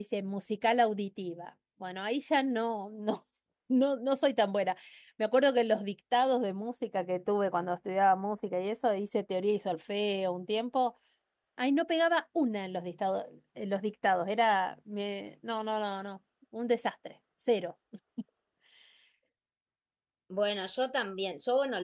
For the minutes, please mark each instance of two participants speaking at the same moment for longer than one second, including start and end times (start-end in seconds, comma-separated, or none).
none